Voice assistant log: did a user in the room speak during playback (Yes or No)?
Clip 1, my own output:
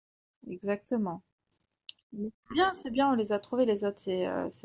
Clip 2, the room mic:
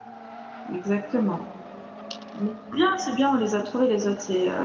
No